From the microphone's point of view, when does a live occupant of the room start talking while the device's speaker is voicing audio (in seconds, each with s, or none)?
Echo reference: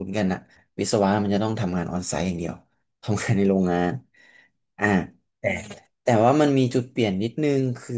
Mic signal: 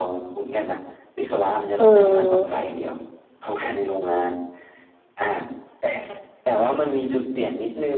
1.8 s